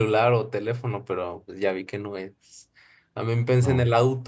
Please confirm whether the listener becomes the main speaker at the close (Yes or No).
No